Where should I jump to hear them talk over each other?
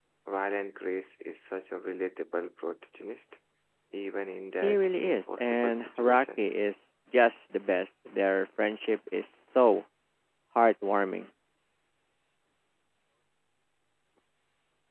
4.6 s

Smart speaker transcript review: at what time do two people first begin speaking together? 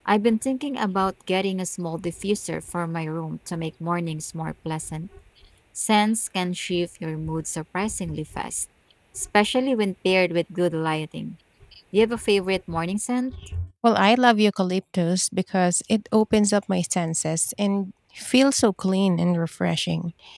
none

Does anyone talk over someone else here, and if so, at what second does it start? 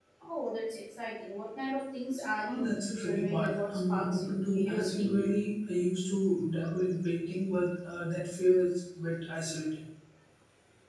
2.4 s

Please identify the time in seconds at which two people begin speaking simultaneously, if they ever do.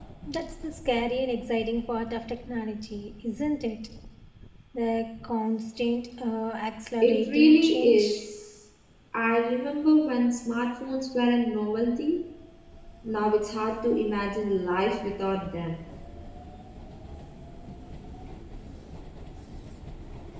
7.0 s

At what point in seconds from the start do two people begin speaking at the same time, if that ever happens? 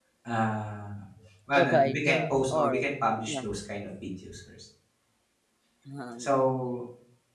1.5 s

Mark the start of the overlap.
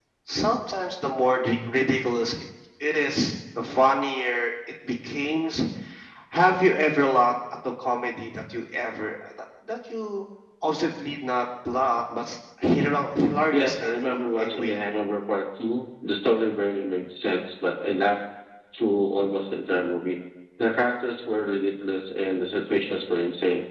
13.5 s

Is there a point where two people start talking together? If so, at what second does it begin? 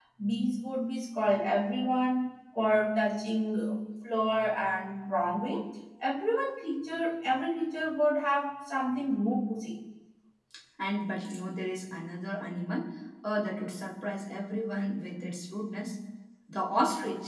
none

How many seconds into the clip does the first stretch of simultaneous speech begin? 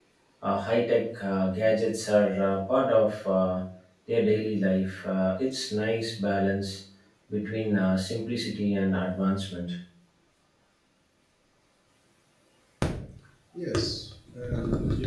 none

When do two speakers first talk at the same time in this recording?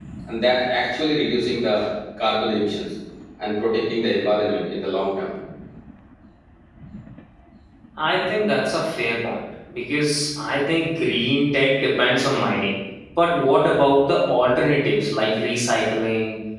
none

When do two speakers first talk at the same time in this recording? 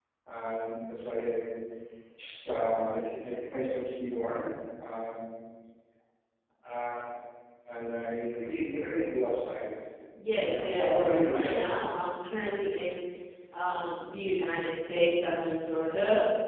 10.5 s

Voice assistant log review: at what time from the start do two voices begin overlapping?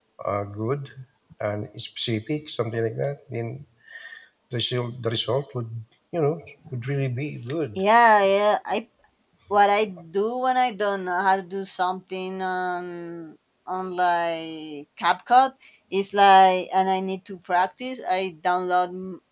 none

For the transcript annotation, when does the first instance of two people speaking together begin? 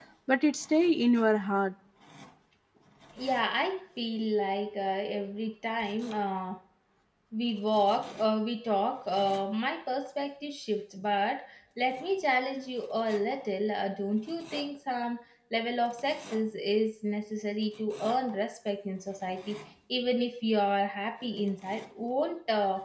none

